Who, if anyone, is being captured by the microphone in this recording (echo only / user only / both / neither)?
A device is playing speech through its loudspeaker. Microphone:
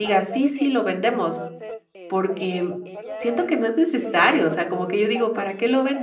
both